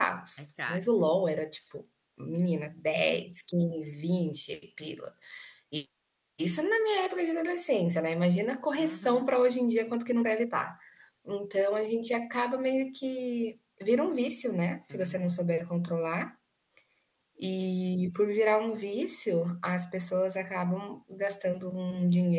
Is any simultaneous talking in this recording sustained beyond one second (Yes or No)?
No